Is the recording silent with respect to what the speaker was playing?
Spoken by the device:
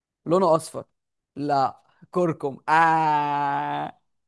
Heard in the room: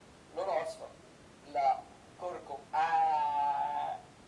No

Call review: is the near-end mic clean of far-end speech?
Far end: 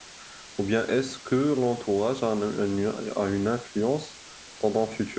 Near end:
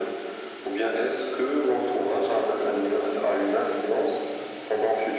No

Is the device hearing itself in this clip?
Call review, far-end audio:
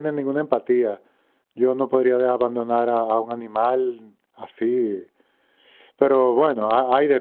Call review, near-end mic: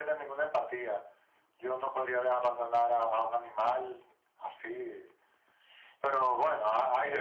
Yes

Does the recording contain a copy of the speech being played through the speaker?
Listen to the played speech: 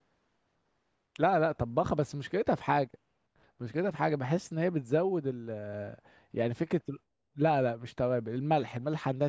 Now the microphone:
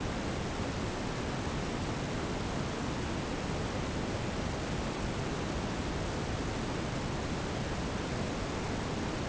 No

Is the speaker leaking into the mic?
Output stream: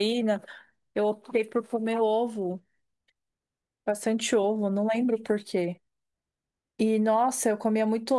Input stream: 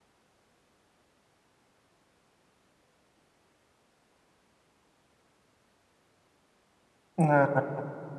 No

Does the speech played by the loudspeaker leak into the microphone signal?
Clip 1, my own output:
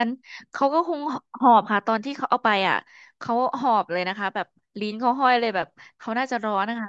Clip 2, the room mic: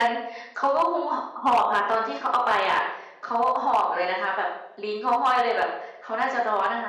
Yes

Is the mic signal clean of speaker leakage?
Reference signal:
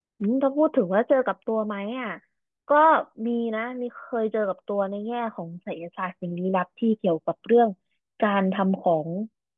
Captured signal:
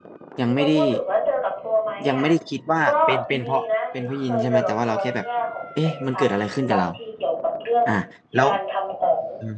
No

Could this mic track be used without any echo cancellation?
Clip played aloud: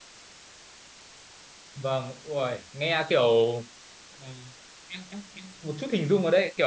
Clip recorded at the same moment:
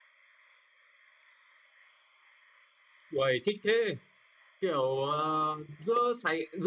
Yes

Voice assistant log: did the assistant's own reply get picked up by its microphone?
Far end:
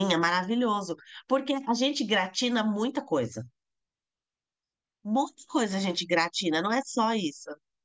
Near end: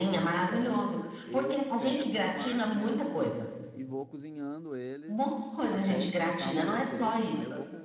Yes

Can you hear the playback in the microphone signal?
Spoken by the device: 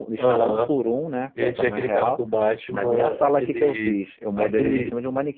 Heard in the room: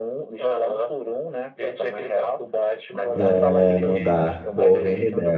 Yes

